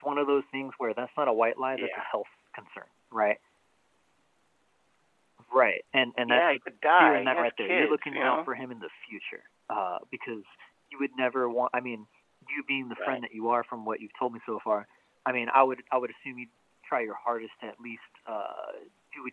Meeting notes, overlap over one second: present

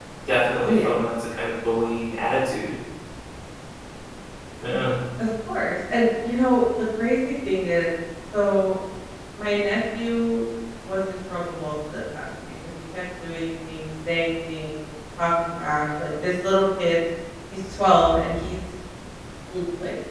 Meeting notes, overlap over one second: none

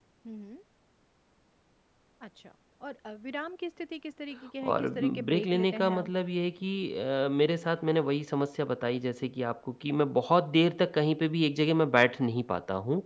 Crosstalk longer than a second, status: present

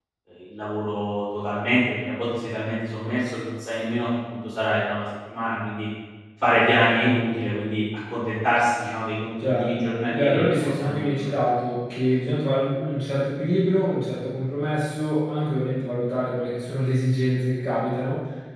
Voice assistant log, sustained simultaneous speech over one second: present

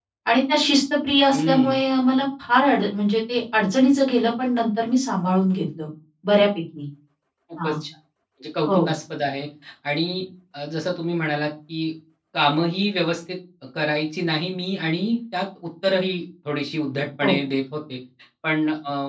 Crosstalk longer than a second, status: none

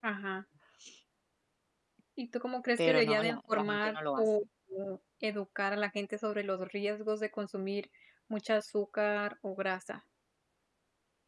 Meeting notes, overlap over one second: present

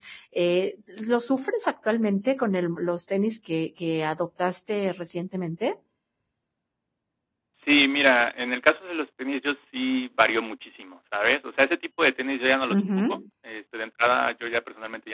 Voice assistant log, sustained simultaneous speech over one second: none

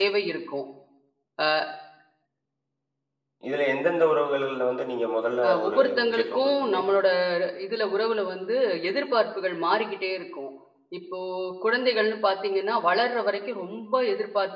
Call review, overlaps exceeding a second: present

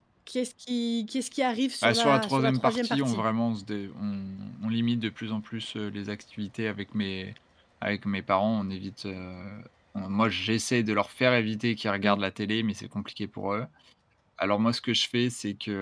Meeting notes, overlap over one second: present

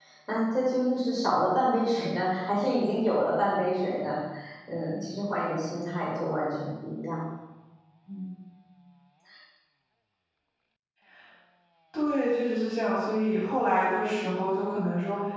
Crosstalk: none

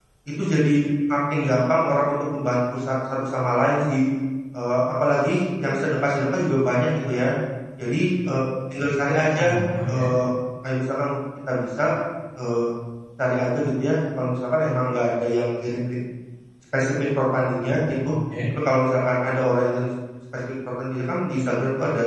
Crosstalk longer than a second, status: none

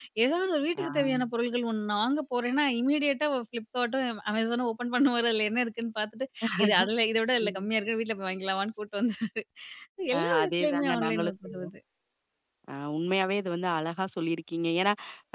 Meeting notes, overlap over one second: present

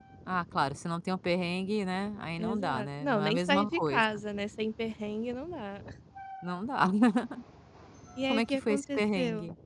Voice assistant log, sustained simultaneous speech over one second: present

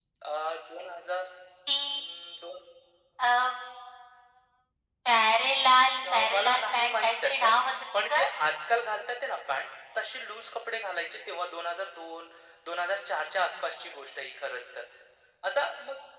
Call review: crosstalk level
present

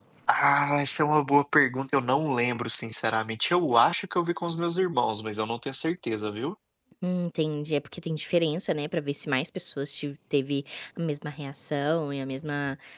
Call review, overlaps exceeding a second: none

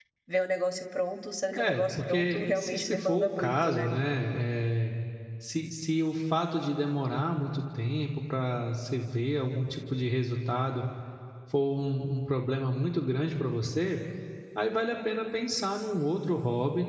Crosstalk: present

